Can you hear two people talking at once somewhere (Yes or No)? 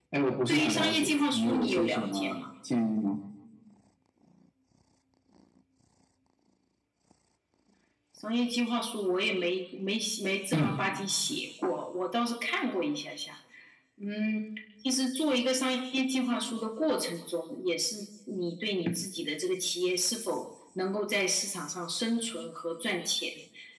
Yes